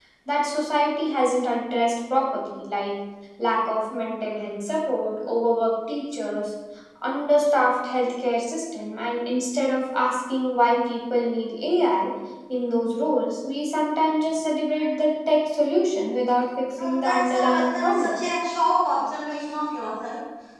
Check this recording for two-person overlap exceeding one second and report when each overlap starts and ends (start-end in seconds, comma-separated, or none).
16.8-18.1